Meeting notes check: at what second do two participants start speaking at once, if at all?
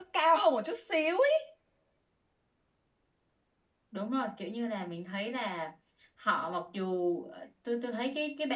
none

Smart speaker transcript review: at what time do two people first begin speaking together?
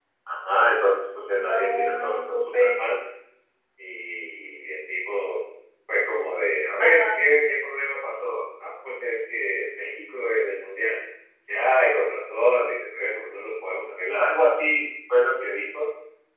1 s

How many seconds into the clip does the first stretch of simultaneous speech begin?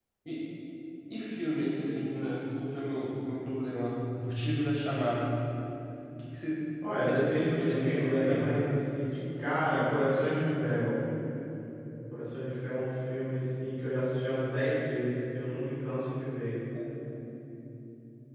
7 s

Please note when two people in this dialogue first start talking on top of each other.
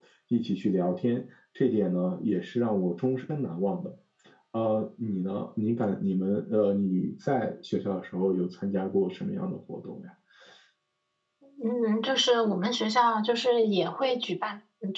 none

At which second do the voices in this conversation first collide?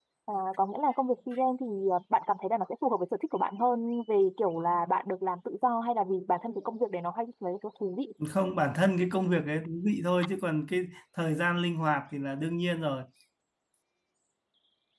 none

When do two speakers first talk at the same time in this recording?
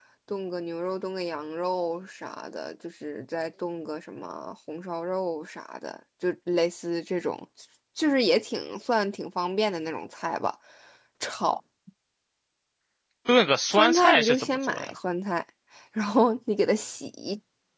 14 s

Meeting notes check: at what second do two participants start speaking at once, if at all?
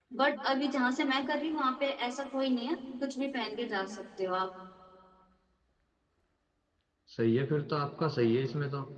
none

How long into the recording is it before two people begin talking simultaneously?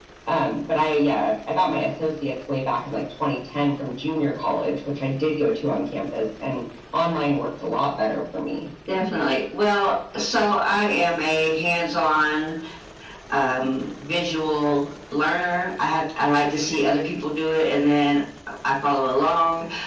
none

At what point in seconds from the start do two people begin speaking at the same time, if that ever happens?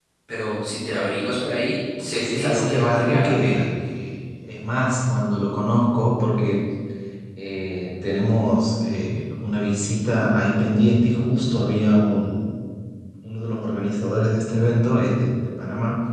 2 s

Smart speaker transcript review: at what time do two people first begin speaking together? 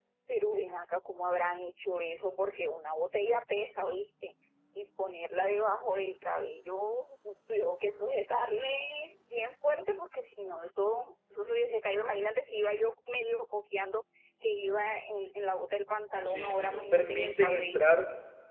16 s

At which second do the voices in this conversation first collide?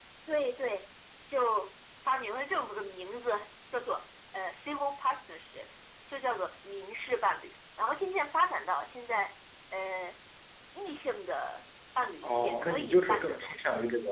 12 s

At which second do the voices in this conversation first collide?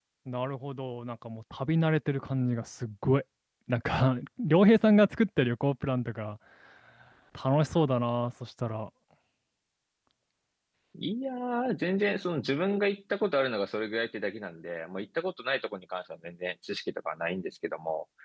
none

